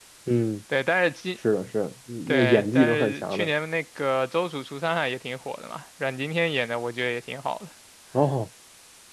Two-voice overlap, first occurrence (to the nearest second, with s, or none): 2 s